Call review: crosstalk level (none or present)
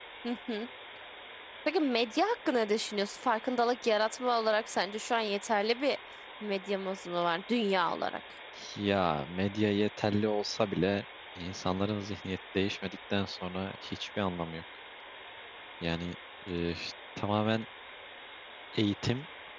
none